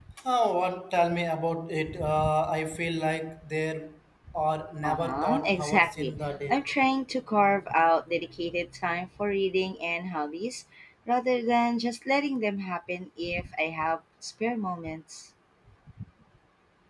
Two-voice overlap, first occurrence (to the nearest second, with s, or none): 5 s